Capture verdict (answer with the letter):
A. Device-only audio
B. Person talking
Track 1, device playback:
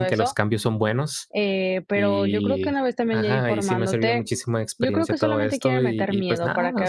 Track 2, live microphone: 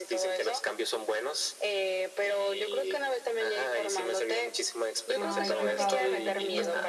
B